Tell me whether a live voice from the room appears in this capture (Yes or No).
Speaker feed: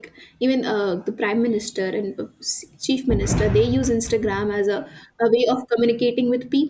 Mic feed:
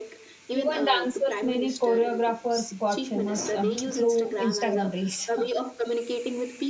Yes